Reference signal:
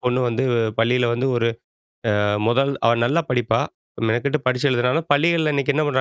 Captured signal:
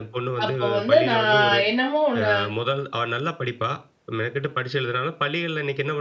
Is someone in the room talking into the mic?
Yes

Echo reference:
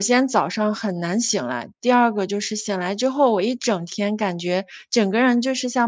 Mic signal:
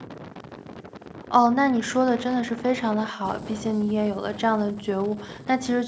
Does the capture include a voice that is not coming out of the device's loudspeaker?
Yes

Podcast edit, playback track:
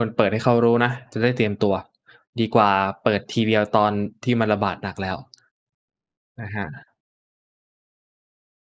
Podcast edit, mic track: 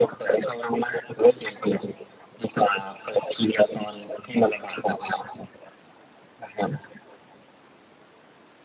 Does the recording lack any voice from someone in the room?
Yes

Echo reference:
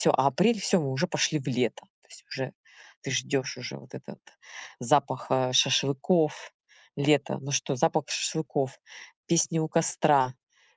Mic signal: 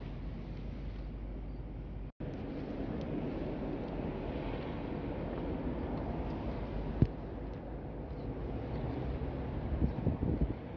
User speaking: No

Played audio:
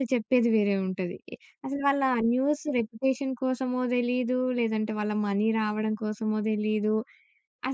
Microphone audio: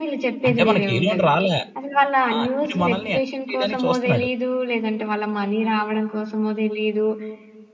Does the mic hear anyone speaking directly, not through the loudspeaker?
Yes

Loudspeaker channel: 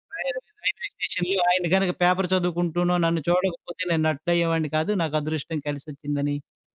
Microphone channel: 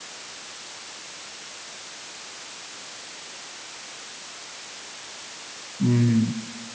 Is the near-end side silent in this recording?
No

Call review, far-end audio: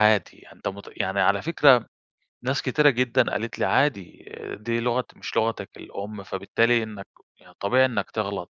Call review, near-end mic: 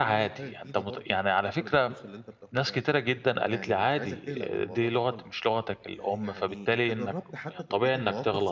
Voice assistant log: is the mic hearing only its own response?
No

